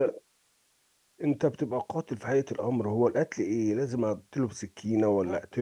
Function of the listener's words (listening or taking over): listening